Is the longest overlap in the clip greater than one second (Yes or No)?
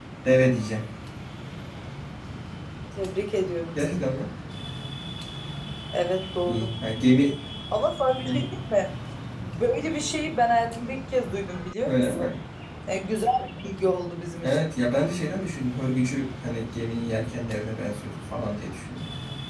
No